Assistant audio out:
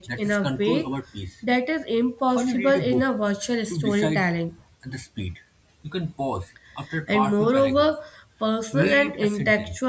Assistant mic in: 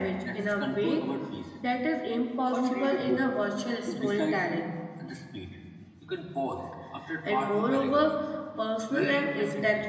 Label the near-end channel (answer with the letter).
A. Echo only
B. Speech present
A